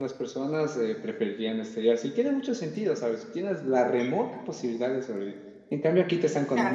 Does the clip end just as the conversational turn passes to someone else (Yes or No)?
No